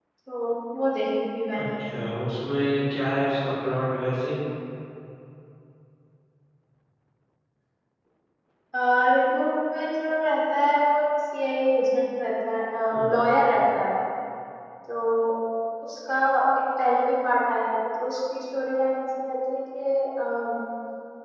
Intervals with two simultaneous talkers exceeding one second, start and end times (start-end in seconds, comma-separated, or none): none